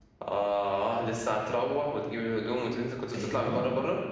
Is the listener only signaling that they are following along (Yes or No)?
No